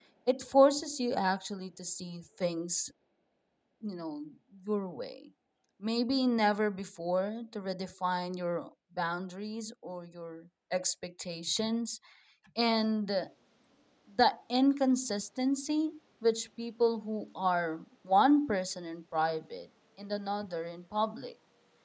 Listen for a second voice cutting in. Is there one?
No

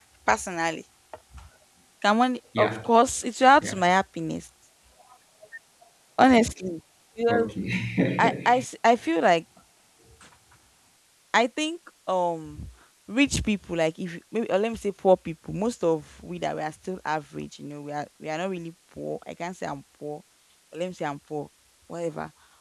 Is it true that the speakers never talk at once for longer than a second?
Yes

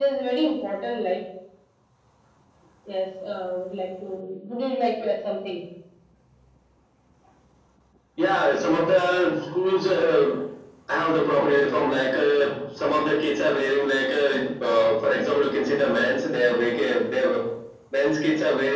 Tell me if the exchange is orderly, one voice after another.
Yes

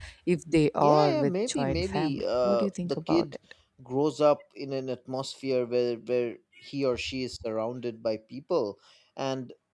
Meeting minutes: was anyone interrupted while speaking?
Yes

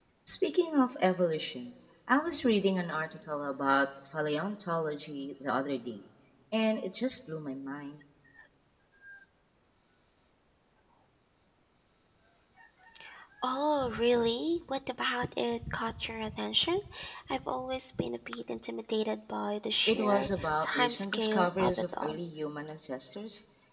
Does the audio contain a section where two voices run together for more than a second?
Yes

